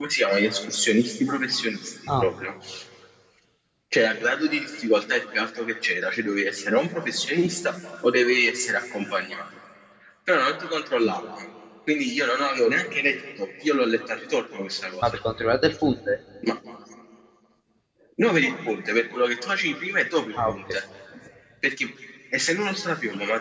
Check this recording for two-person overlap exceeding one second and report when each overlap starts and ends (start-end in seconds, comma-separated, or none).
none